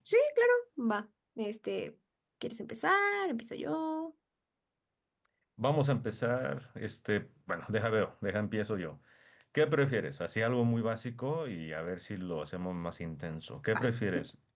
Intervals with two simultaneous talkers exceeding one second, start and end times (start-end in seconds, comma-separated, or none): none